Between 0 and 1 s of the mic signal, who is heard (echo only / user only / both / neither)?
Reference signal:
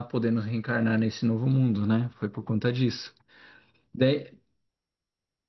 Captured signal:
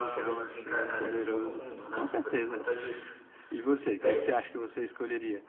both